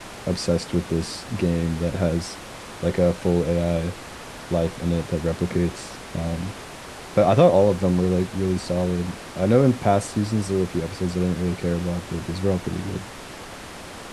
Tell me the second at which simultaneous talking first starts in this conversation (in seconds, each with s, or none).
none